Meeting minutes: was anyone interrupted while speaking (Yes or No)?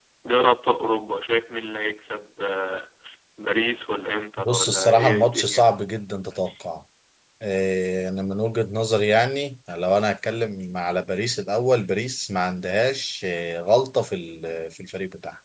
Yes